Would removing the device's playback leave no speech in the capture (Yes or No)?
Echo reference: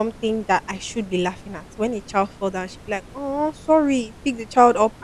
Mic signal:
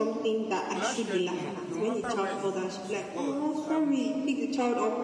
No